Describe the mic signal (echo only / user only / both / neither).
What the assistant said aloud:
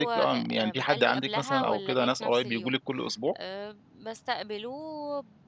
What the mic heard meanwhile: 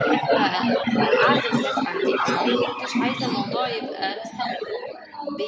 both